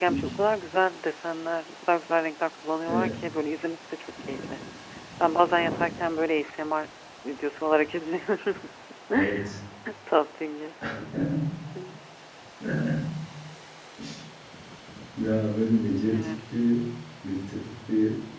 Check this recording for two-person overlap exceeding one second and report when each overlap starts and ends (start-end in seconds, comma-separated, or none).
none